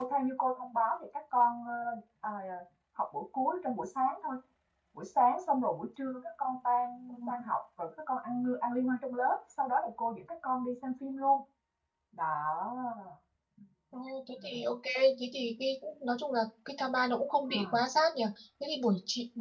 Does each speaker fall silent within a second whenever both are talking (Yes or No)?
Yes